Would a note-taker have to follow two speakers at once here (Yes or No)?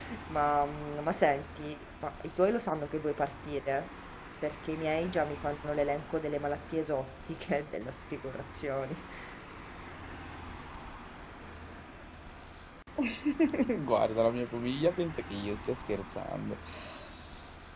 No